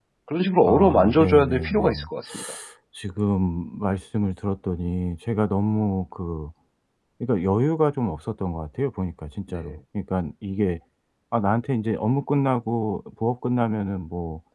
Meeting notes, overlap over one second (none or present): present